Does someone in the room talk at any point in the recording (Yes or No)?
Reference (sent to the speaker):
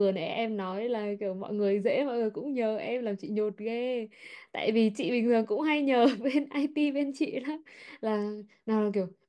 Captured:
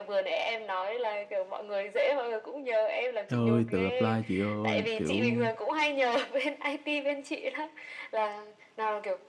Yes